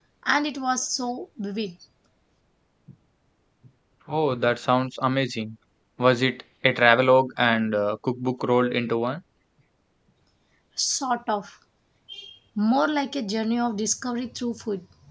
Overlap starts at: none

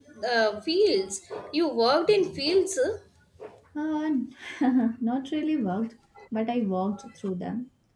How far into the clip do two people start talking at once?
none

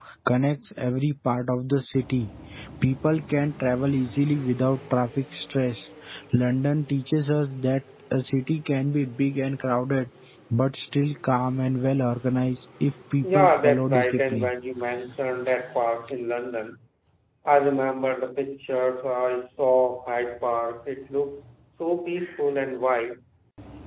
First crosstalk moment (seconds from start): 13.2 s

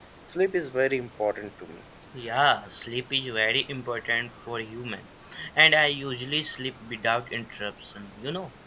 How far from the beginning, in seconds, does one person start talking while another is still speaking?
none

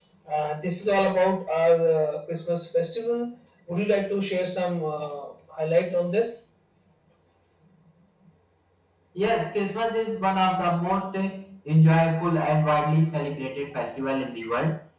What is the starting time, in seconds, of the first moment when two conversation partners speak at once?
none

